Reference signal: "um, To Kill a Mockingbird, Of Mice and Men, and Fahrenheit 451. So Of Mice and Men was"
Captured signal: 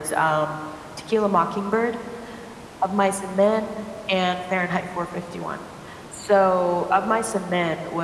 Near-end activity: none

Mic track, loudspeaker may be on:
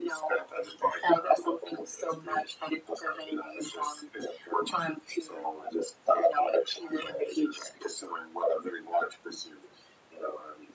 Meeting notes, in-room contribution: none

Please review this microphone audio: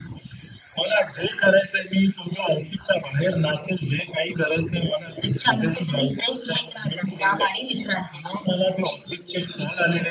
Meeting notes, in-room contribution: none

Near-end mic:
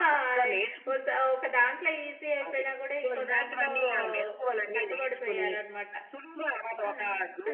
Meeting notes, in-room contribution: present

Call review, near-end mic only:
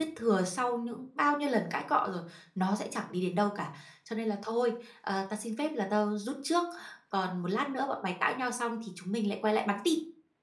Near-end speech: present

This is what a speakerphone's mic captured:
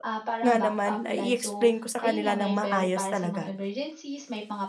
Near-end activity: present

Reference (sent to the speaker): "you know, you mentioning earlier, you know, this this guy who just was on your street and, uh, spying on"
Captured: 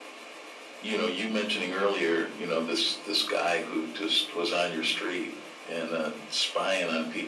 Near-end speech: none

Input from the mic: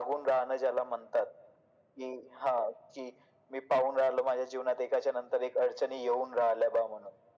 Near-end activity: none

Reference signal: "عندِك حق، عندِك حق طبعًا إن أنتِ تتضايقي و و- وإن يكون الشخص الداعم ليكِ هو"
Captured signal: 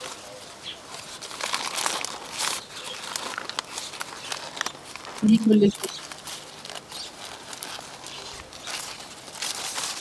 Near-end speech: present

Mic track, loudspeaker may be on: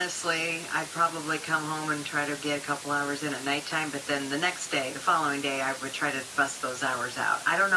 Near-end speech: none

